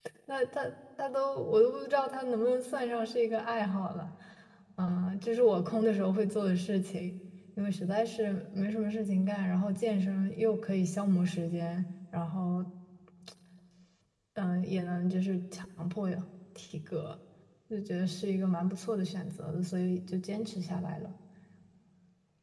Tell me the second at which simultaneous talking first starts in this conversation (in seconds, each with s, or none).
none